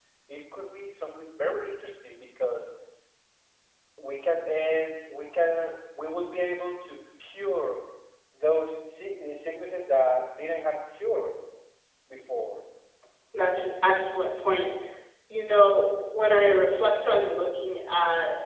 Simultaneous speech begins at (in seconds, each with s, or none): none